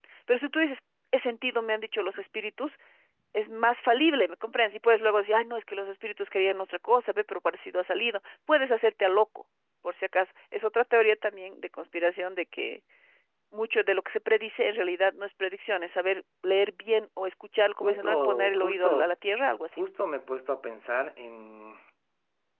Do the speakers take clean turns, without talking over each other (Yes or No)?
No